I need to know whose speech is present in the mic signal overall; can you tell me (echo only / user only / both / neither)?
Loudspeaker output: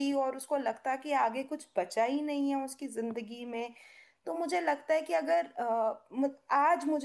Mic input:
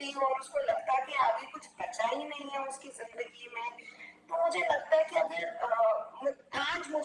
echo only